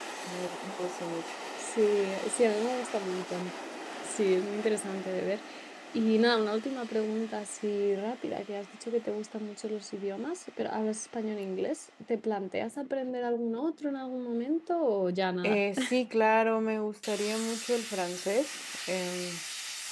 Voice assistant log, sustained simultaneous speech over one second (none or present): none